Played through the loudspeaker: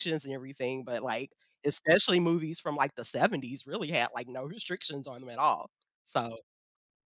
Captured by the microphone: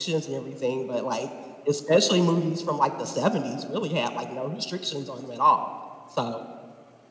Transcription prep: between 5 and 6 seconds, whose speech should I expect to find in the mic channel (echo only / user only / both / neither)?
echo only